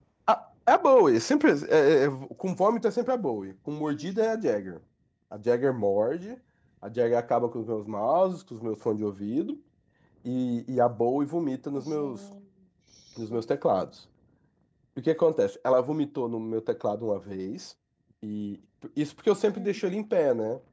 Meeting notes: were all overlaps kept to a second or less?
Yes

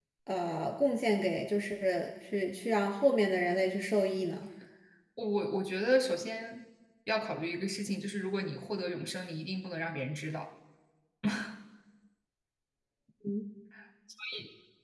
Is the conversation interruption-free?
Yes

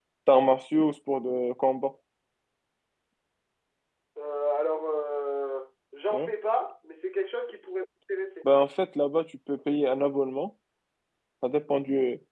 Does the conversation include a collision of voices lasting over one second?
No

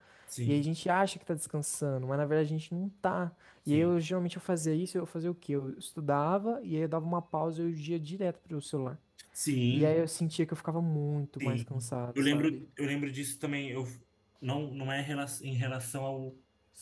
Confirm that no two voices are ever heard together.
No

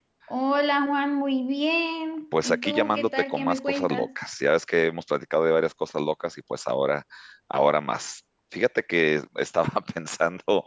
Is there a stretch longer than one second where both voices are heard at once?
Yes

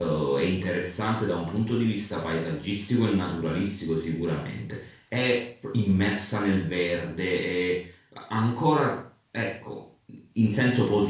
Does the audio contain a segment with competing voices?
No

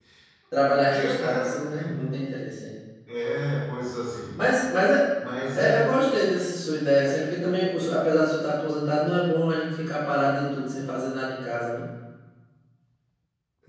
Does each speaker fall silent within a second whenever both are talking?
No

